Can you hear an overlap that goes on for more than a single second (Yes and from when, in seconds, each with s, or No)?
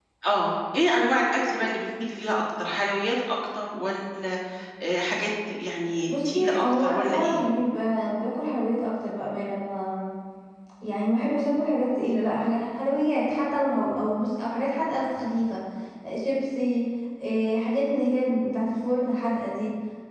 Yes, from 6.1 s